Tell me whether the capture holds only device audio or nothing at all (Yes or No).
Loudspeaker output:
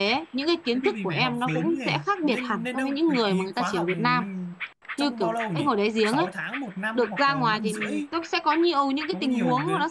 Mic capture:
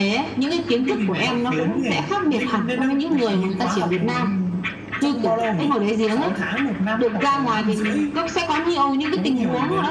Yes